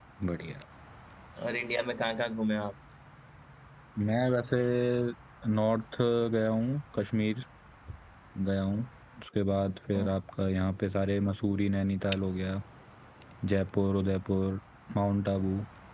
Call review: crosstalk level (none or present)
none